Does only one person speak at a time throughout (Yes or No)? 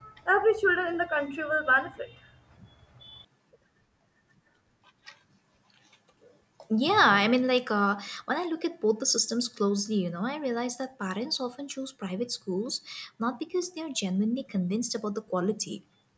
Yes